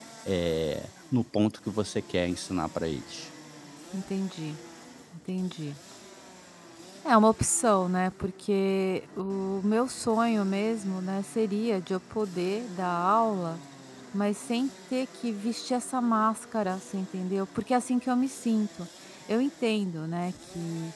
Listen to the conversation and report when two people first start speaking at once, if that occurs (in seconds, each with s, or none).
none